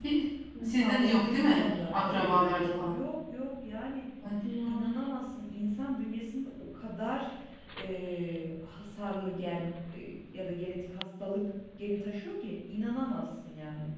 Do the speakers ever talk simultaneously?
Yes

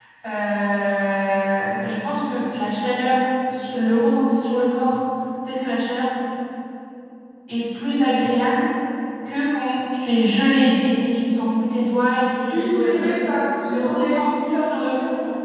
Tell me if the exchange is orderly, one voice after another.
No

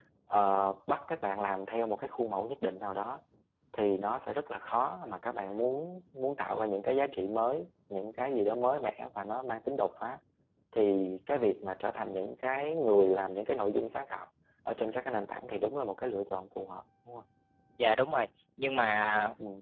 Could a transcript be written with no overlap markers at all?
Yes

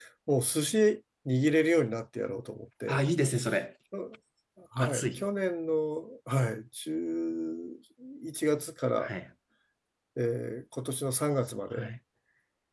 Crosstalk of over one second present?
No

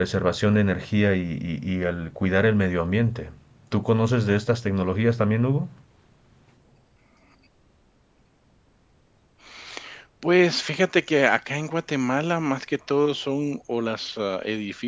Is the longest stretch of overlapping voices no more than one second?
Yes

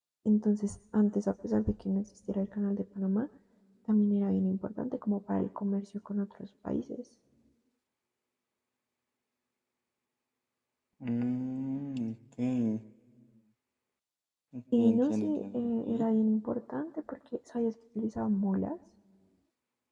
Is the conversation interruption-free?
No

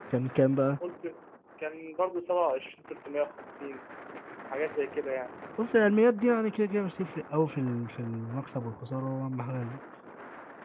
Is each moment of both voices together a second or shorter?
Yes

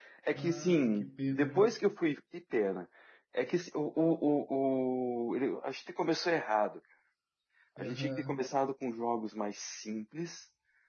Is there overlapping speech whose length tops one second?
Yes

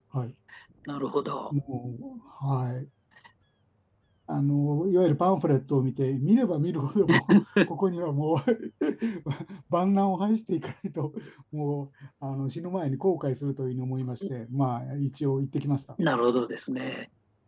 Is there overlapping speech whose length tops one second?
No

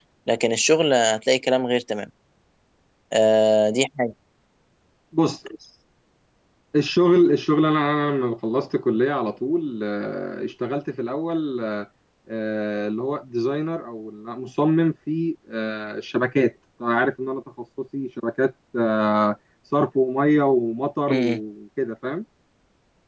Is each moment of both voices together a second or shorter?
Yes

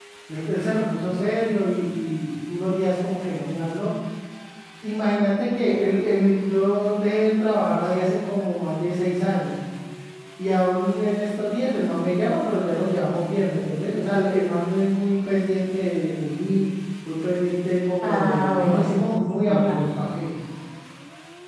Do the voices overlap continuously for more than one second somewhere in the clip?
Yes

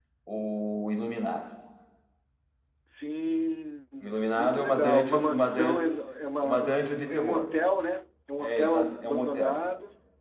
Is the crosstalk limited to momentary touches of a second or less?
No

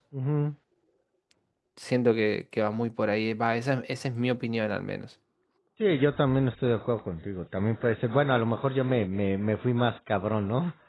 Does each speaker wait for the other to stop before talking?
Yes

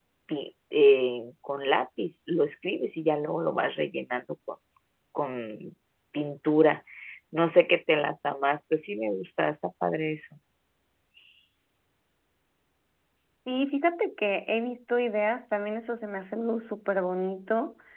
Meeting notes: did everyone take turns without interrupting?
Yes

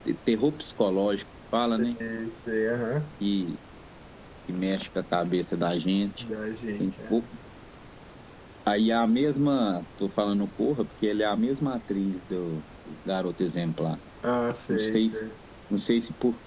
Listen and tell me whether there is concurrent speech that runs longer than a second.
No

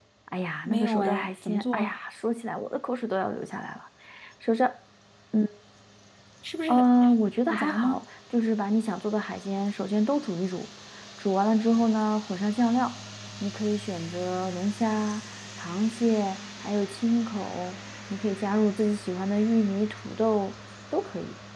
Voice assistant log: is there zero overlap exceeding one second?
No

